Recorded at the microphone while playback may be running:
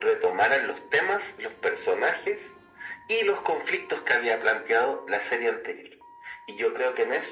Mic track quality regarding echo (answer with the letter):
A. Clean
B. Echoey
B